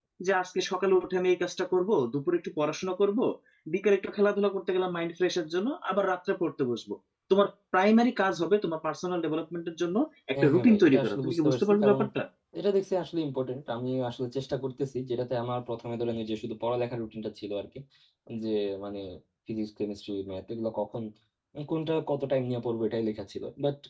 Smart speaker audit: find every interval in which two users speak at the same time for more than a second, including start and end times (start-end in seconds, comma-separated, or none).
10.4-12.0